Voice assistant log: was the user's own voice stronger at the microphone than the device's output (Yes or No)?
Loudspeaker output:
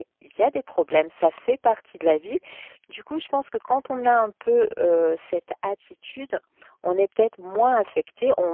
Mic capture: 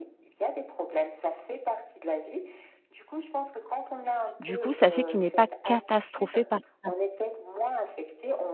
Yes